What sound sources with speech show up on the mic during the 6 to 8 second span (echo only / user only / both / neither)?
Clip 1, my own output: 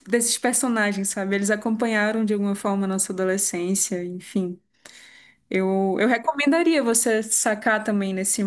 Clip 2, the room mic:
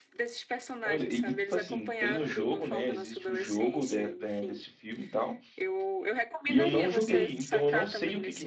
both